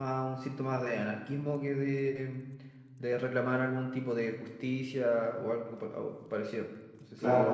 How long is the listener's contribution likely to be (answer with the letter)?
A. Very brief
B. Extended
B